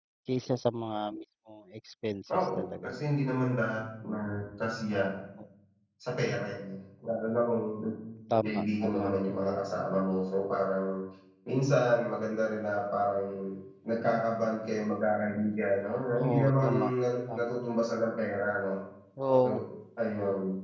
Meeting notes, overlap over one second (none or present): present